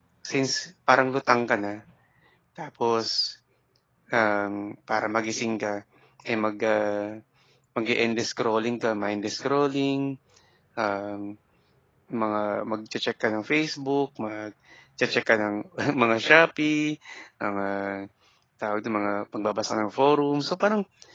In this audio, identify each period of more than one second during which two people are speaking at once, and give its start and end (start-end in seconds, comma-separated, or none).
none